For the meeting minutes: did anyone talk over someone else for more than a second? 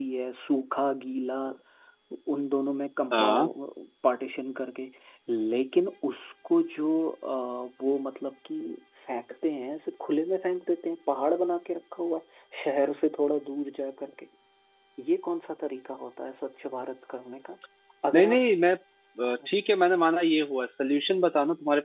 No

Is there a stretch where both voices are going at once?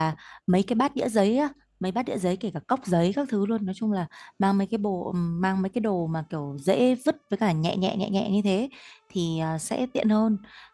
No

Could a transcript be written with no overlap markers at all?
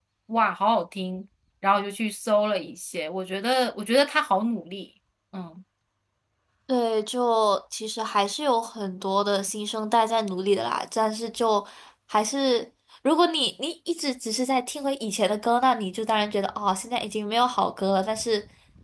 Yes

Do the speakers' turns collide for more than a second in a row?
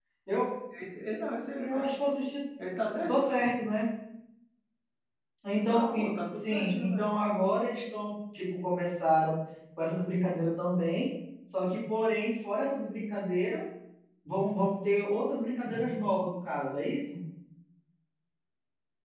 Yes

